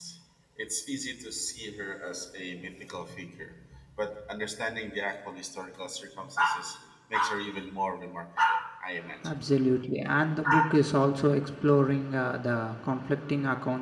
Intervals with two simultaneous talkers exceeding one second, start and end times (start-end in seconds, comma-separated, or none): none